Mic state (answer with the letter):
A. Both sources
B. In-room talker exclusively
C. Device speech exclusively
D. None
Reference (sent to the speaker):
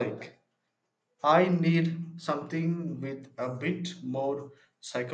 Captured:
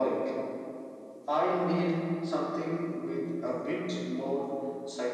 C